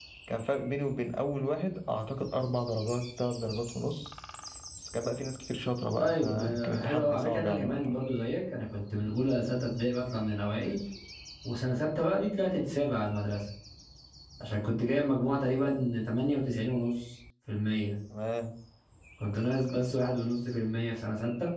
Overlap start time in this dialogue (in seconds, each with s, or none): 6.0 s